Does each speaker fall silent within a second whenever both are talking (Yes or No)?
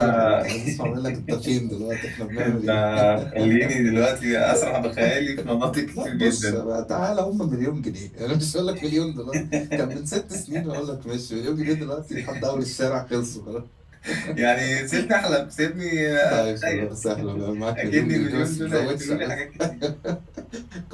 No